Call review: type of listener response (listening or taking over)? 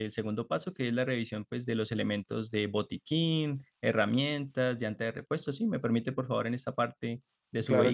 taking over